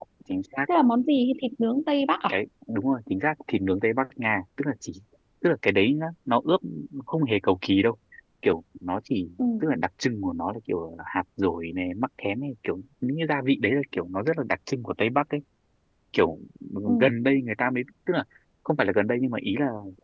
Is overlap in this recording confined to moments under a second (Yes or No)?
Yes